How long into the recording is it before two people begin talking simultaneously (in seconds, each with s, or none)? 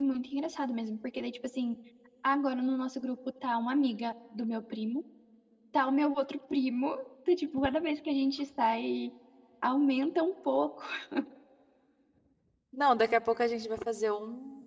none